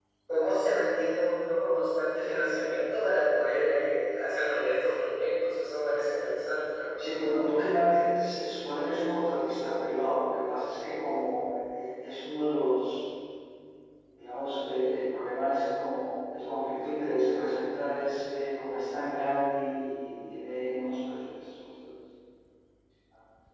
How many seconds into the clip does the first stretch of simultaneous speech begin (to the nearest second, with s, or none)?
none